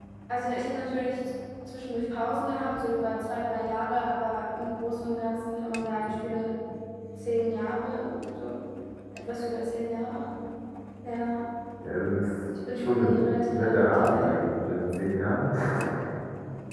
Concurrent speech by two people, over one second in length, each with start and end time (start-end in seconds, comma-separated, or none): 12.8-14.3